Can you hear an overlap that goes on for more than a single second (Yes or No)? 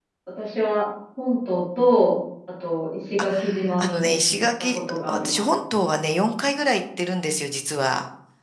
Yes